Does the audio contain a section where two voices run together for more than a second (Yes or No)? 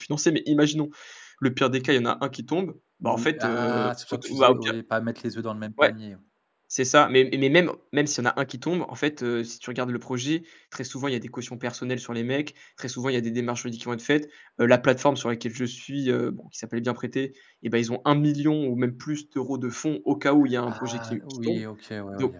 Yes